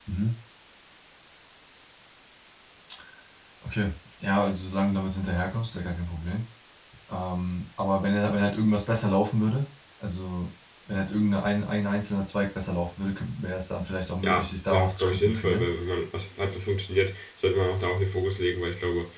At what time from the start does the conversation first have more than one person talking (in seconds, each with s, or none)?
14.2 s